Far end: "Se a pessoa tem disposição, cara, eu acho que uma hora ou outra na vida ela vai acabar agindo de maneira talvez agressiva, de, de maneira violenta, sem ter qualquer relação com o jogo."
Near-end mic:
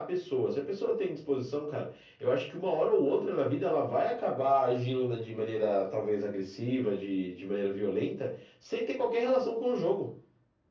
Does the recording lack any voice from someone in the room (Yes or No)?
Yes